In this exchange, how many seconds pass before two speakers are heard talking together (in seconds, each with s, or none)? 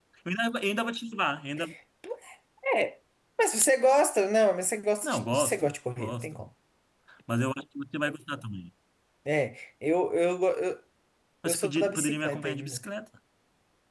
5.0 s